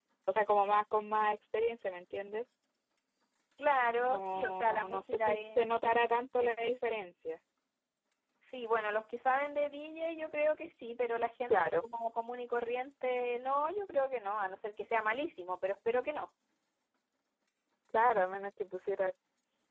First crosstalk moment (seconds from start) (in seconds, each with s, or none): 3.9 s